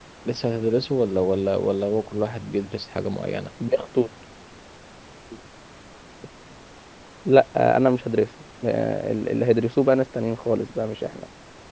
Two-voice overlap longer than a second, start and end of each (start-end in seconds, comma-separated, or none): none